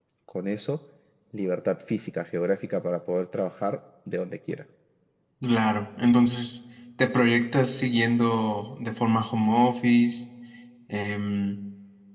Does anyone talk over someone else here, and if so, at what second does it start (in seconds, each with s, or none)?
none